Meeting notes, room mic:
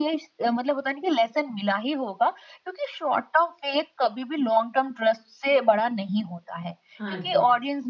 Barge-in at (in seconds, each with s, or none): 7.0 s